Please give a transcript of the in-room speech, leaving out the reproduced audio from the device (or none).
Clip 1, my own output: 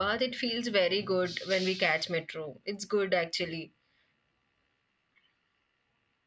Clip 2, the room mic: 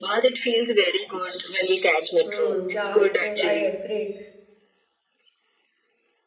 hmm, yeah, it is. I agree.